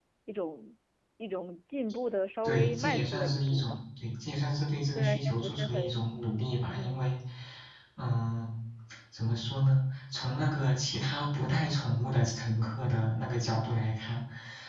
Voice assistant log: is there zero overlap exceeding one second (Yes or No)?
No